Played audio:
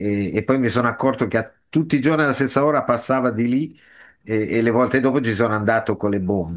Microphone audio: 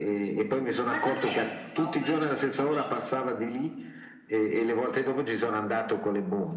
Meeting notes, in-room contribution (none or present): present